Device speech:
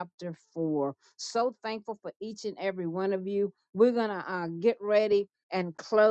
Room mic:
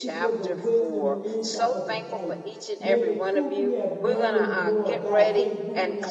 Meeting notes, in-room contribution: present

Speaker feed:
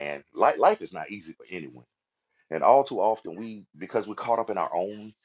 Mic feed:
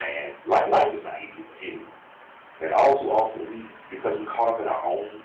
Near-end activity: none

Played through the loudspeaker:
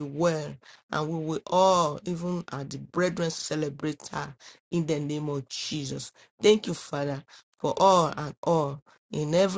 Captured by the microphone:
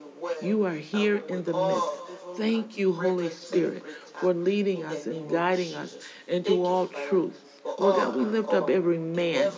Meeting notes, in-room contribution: present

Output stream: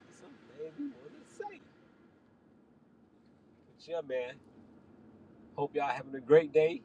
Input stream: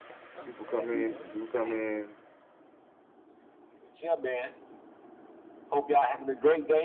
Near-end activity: present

